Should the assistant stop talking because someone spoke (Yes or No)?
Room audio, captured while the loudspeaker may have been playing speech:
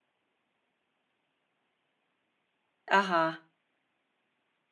Yes